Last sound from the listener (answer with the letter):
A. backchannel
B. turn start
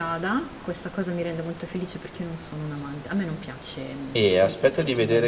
B